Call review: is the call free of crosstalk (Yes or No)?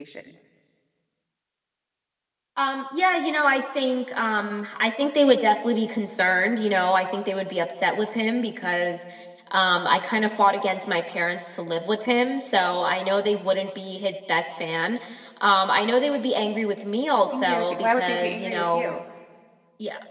No